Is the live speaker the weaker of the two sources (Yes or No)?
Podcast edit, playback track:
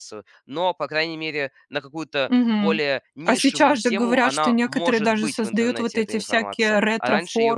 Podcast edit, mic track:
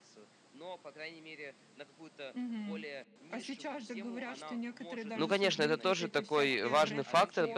No